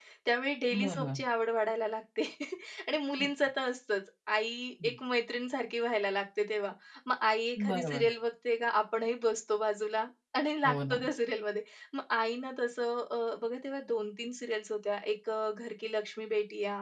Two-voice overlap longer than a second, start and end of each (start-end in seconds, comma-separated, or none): none